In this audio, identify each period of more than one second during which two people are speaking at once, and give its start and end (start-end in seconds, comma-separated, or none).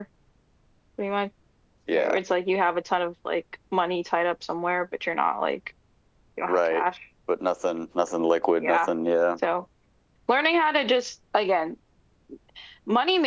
none